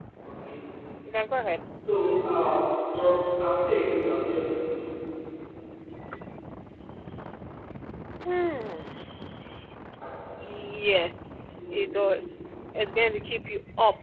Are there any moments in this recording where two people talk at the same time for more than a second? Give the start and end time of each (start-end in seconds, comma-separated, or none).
none